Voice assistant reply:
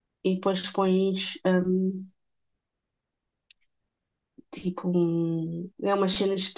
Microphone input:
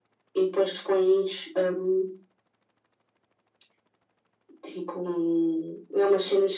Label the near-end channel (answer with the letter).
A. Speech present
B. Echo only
B